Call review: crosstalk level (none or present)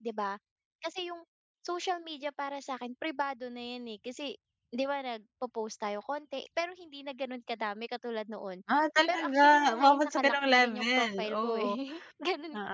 present